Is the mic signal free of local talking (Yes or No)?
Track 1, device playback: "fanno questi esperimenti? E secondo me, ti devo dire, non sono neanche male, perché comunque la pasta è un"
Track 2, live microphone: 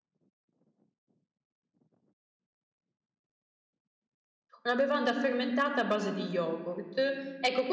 No